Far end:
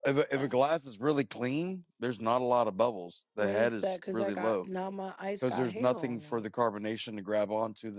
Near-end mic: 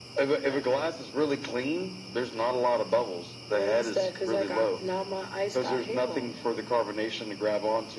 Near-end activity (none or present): none